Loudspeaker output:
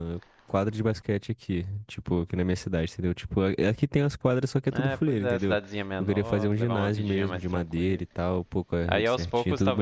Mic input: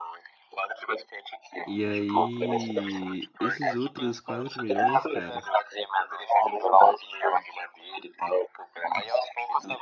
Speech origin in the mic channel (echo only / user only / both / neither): both